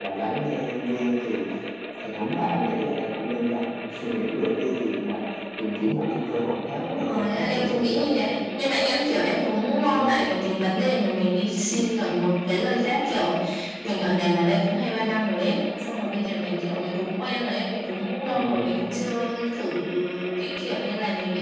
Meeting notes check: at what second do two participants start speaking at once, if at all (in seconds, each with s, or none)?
6.7 s